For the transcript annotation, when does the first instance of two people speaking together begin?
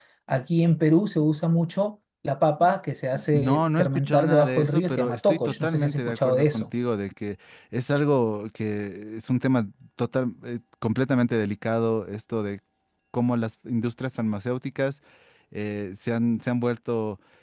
3 s

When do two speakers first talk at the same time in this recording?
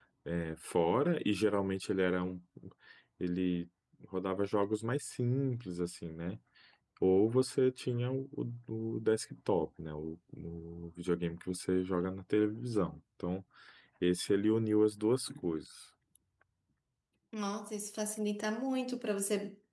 none

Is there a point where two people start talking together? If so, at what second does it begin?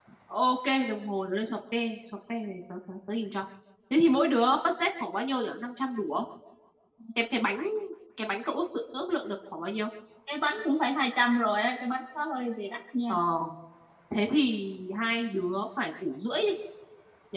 none

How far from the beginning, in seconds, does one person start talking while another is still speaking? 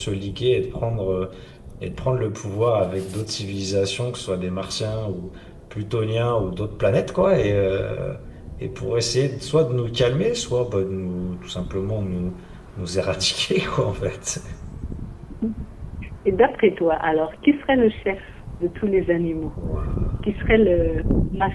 none

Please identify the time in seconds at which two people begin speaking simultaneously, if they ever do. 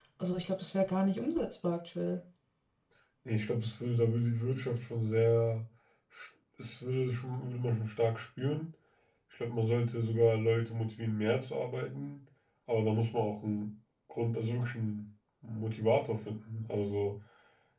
none

